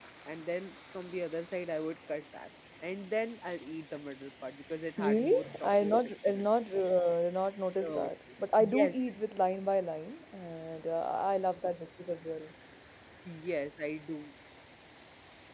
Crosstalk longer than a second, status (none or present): present